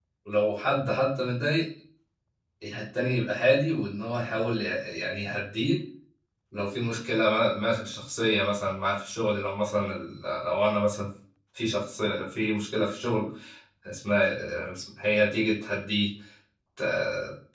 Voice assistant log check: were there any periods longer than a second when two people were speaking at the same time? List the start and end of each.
none

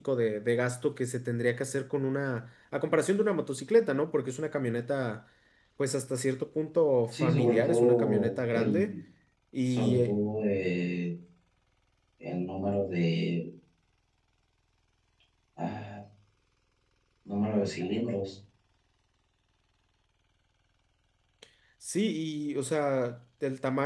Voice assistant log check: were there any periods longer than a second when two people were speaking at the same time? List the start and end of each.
7.1-9.0

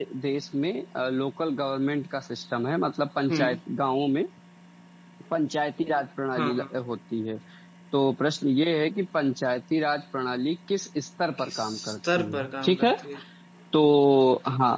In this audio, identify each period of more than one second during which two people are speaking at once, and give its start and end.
11.4-12.9

